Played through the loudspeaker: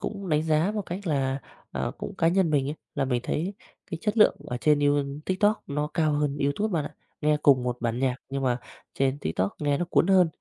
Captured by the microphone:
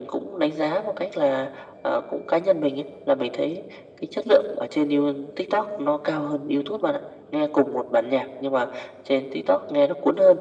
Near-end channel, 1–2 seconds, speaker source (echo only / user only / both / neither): echo only